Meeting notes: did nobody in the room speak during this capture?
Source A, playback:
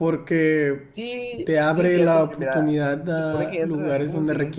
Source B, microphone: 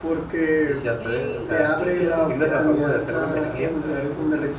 No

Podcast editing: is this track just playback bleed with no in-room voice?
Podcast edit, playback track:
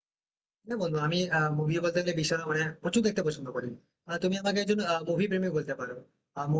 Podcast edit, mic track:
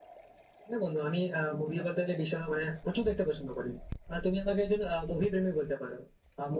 Yes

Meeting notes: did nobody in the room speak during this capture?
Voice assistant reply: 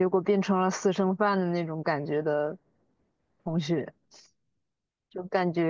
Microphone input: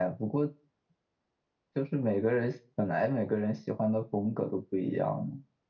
No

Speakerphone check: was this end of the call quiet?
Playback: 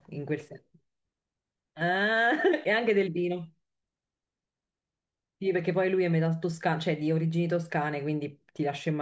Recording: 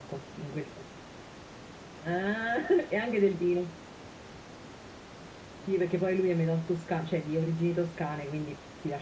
Yes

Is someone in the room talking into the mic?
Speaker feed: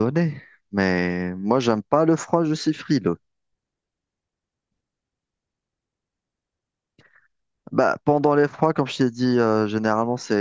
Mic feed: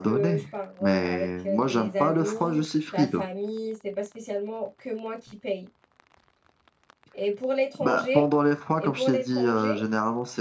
Yes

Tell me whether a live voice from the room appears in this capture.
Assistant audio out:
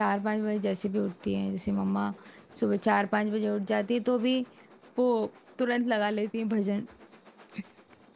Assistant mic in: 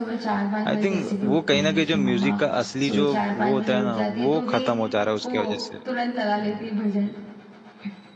Yes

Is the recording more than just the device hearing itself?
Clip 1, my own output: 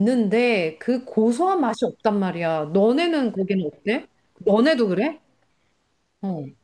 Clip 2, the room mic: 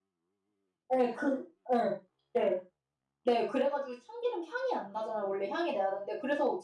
Yes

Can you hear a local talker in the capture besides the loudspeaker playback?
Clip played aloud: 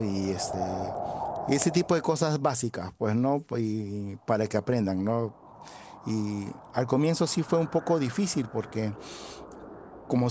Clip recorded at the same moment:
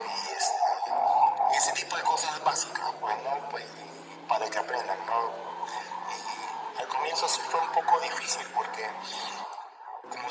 No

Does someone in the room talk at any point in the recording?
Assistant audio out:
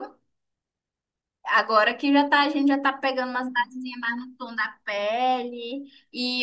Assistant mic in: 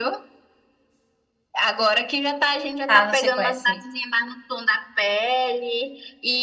Yes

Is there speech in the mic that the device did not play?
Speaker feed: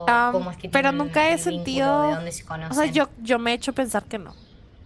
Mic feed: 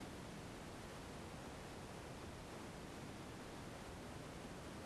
No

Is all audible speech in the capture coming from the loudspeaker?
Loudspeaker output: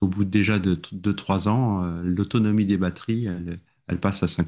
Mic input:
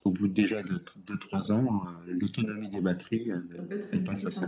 No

